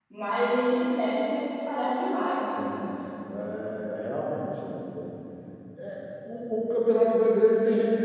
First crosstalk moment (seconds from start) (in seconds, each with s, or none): none